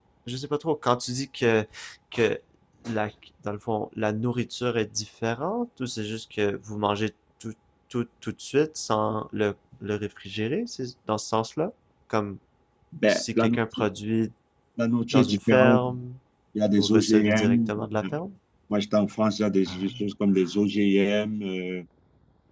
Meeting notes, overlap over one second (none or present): present